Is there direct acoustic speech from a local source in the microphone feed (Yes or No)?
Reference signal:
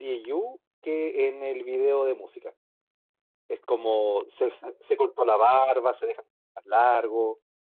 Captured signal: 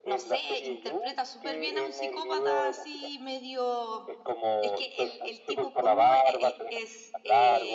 Yes